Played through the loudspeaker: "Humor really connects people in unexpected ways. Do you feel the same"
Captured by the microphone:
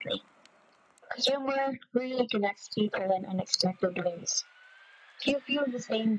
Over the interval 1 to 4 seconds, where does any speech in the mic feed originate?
echo only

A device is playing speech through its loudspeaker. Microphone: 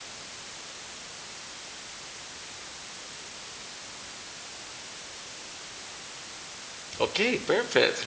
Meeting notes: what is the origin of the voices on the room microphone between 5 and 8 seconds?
user only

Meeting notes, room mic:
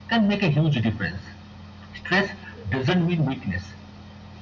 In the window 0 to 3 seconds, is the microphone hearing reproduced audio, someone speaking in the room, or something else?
echo only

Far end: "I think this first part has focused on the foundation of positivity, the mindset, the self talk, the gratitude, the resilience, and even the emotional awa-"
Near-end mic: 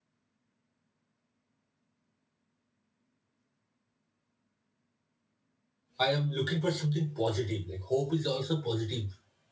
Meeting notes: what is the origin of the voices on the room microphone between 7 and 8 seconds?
user only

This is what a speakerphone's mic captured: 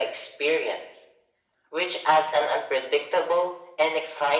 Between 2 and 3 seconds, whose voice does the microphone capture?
echo only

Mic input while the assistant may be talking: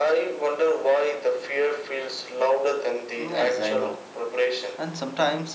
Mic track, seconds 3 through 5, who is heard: both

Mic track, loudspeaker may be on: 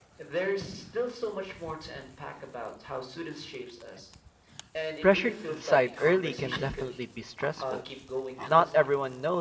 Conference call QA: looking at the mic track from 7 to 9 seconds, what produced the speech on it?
both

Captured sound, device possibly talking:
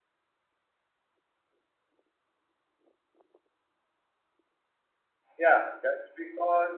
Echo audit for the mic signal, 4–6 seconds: user only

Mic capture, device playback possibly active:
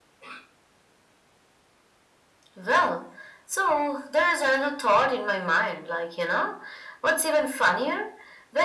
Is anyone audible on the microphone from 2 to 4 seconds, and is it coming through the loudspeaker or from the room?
echo only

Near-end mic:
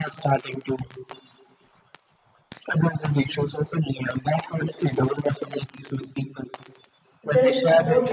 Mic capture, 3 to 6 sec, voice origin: echo only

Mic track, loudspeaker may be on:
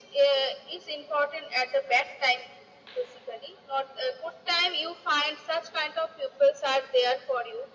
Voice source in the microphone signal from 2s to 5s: echo only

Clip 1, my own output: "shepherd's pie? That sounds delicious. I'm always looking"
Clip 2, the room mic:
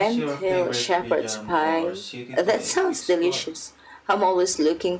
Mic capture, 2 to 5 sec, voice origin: both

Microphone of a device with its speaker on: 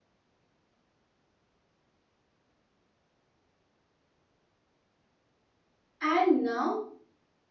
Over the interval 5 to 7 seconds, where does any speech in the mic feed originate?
user only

